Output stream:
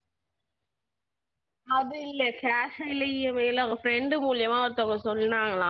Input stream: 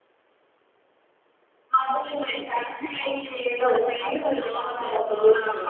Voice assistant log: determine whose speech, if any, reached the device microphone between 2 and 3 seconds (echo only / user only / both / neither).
echo only